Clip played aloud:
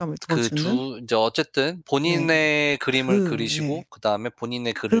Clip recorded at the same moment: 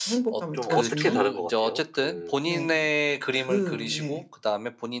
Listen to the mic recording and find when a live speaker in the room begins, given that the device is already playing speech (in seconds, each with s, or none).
0.5 s